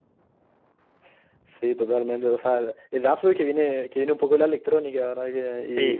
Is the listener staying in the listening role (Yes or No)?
No